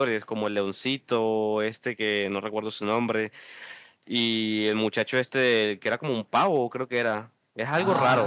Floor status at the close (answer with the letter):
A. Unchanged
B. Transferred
B